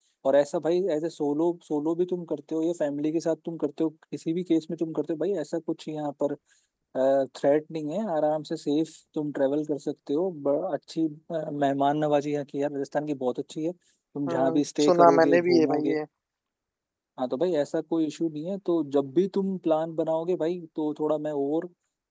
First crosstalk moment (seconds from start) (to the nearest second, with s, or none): 14 s